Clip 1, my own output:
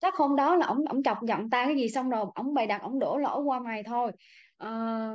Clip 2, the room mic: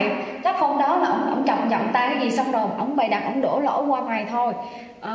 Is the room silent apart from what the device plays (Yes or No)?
Yes